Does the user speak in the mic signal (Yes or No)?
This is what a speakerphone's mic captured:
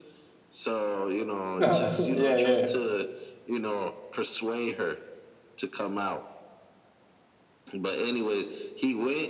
Yes